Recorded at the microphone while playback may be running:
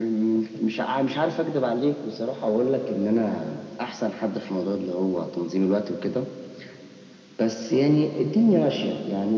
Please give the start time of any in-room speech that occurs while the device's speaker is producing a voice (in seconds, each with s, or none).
none